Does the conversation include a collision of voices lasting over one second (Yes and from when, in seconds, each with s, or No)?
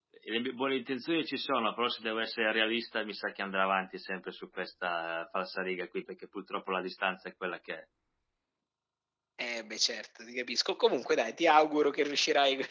No